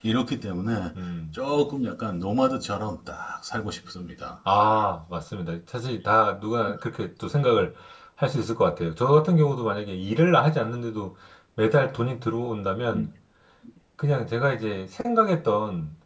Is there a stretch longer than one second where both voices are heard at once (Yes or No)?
No